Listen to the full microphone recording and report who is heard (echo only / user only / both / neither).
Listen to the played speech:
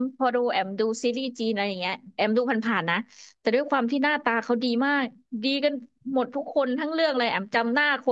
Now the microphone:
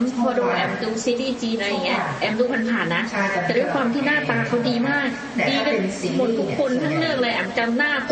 both